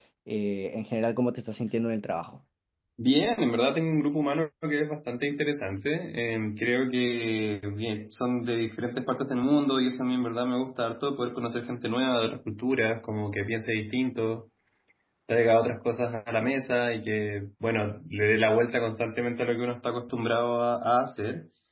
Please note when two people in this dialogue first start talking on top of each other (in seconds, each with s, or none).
none